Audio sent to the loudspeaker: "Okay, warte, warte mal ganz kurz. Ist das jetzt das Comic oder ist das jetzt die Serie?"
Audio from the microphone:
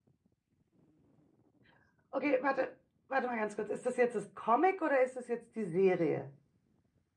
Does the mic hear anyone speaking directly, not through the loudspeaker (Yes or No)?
No